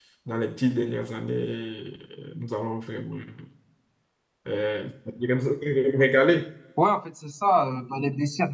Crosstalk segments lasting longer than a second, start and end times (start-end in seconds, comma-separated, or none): none